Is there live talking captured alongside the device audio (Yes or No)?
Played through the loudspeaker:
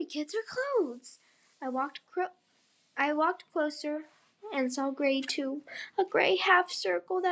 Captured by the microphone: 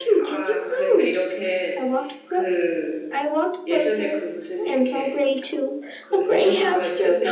Yes